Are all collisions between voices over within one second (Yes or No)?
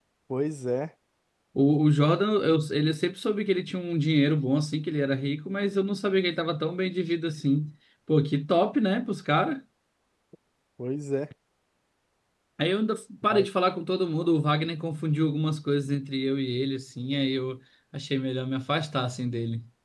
Yes